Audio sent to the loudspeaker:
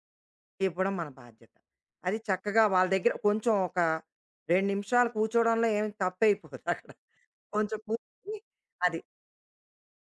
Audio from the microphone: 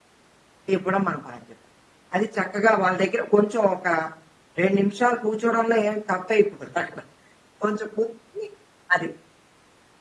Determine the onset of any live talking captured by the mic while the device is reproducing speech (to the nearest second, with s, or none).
none